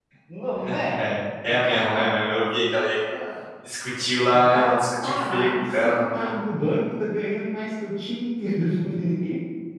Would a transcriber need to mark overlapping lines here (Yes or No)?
Yes